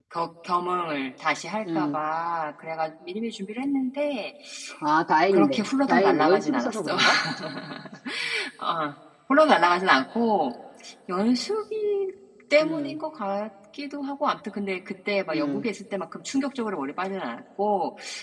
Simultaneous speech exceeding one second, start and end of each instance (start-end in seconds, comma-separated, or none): 5.3-7.0